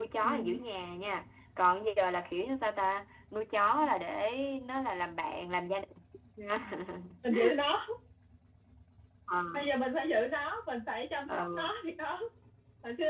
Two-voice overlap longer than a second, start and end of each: none

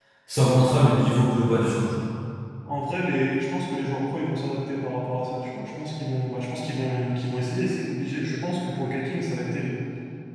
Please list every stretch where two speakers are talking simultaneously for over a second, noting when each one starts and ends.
none

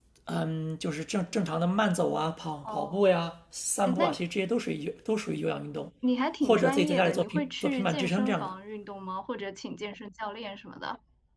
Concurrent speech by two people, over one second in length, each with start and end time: 6.4-8.5

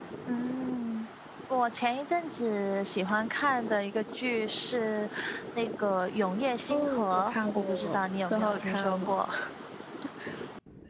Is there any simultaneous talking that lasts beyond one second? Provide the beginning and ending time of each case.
6.7-9.2

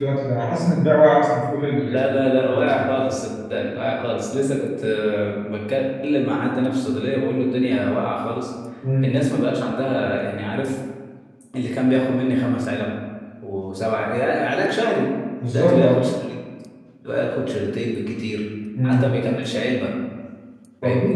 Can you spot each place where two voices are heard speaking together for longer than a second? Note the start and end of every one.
none

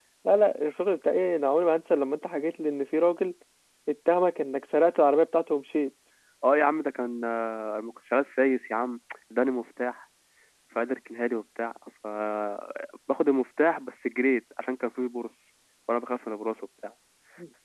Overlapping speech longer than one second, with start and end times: none

